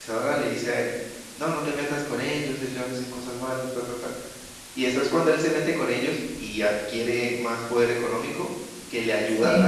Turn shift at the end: No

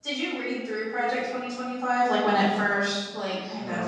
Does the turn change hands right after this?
Yes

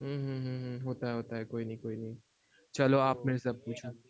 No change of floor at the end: No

